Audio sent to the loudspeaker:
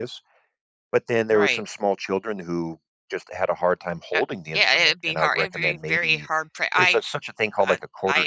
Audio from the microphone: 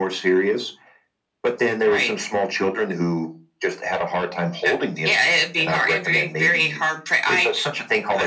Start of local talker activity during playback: none

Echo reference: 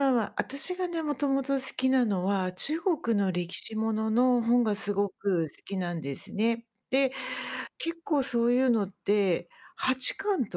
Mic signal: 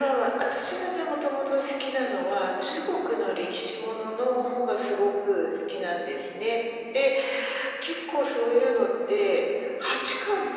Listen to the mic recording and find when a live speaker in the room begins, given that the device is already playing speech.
none

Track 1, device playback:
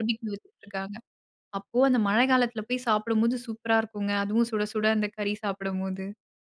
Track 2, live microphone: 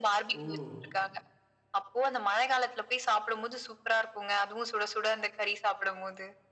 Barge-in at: 0.3 s

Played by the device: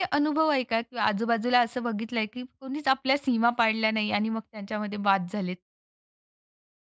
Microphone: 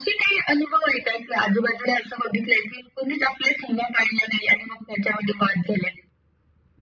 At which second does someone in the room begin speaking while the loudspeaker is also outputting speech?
none

